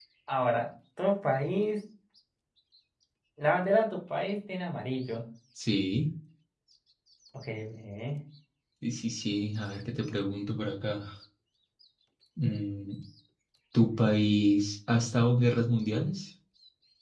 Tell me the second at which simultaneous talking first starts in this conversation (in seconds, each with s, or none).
none